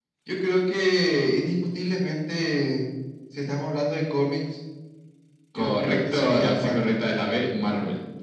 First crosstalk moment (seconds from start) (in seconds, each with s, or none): 5.6 s